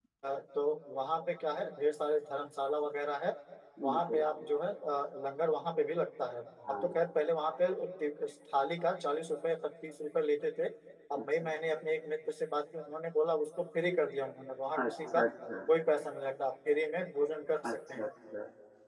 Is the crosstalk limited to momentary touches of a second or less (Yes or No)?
Yes